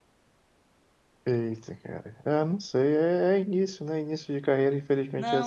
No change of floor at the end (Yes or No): No